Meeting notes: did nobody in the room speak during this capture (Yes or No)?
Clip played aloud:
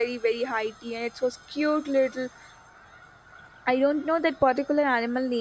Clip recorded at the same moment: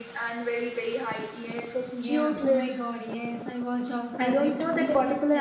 No